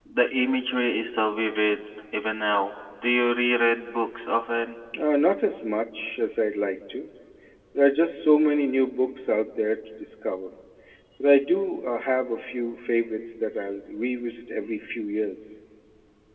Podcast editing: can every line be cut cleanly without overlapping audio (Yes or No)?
Yes